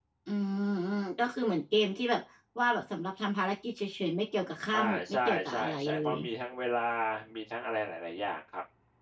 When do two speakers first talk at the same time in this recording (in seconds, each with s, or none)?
4.7 s